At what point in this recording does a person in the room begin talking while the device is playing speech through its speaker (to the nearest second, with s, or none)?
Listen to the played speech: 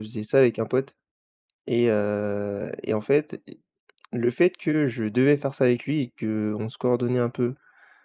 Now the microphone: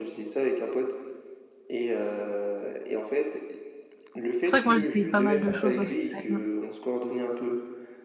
4 s